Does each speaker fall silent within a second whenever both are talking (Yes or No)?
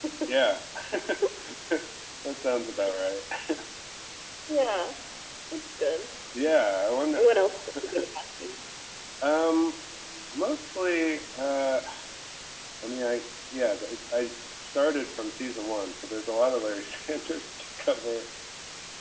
Yes